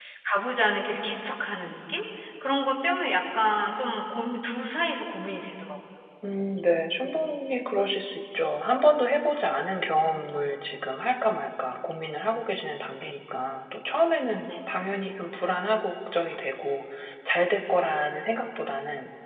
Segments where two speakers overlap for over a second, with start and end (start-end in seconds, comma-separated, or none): none